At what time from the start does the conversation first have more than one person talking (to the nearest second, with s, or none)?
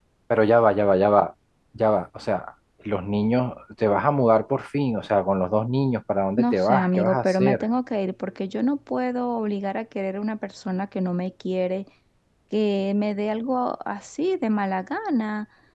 6 s